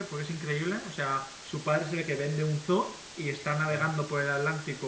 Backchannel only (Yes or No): Yes